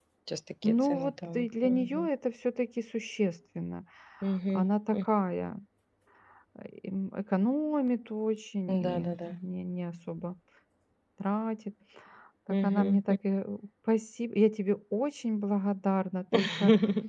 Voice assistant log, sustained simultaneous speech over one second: present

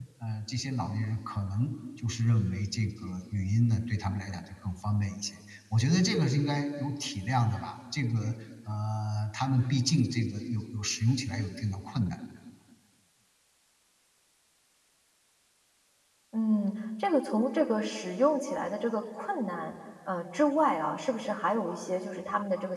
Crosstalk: none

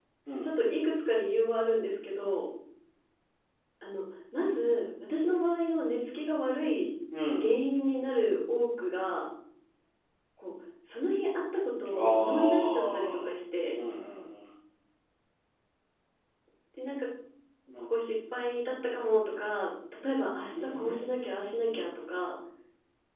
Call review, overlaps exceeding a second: present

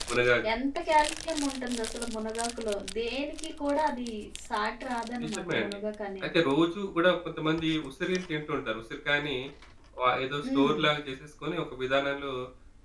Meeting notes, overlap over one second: none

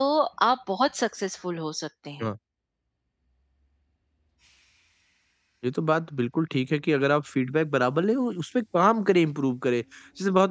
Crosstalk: none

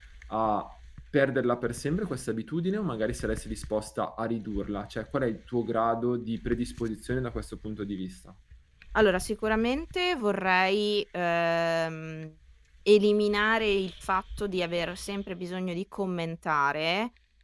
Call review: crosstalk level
none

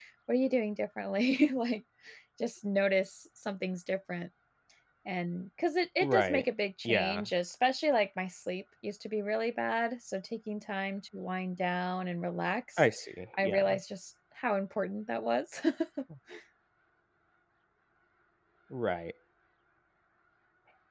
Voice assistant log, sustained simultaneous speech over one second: none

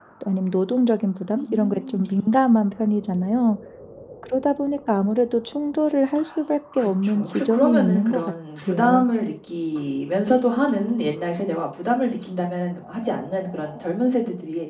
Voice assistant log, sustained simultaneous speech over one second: present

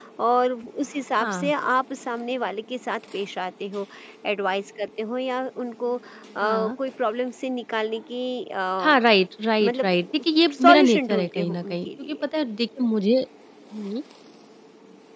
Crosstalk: present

